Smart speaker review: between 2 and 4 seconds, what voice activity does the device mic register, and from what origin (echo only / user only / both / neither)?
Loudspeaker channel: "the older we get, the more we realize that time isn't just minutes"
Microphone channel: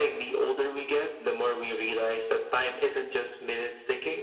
echo only